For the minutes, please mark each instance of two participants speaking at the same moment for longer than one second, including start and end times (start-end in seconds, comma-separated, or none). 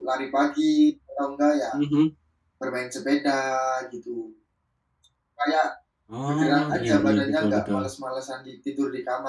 6.3-7.9